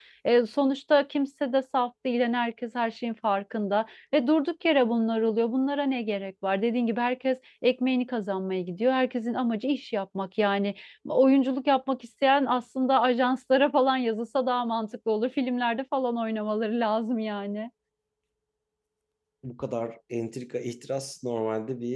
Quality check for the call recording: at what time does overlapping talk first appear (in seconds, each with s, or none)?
none